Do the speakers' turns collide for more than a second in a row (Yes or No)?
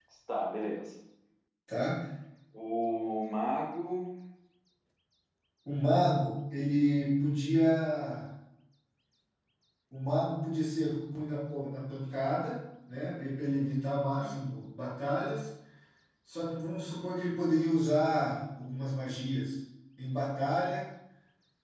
No